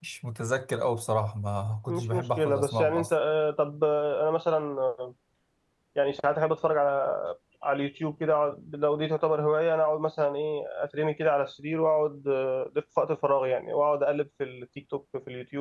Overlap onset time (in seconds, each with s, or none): 1.9 s